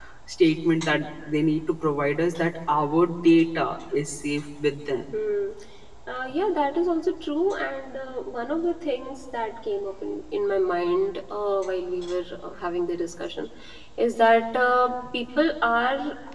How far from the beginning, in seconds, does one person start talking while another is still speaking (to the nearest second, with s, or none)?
none